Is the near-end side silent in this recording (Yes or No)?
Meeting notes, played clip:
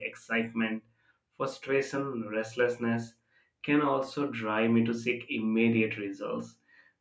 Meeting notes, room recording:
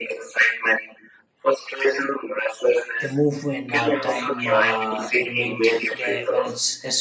No